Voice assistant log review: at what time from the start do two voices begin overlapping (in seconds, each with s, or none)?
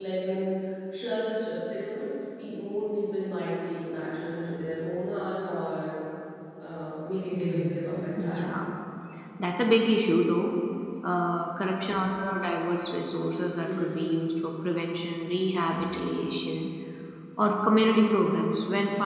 7.3 s